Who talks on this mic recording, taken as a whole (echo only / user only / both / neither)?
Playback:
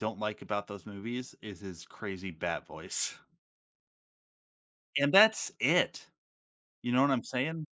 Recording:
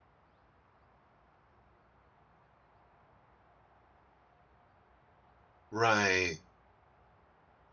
user only